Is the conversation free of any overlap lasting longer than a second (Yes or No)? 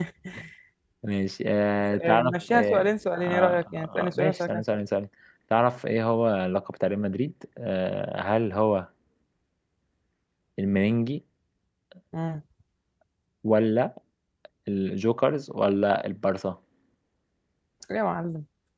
No